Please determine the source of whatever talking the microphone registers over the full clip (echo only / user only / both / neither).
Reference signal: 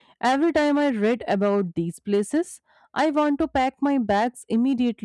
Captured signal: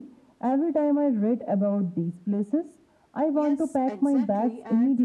both